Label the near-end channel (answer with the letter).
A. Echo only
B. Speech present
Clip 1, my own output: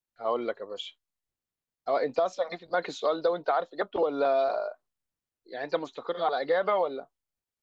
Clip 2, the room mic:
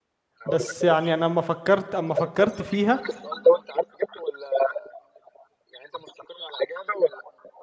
B